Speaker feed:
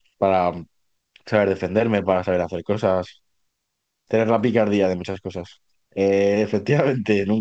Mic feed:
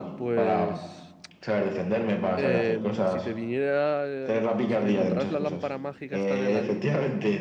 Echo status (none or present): present